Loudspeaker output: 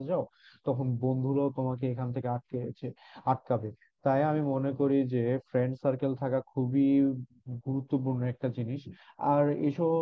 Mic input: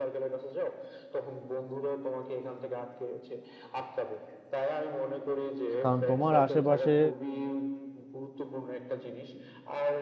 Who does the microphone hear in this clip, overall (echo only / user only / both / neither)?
both